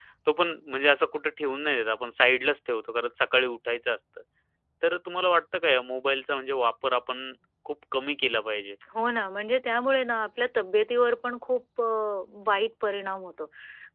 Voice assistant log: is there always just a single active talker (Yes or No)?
Yes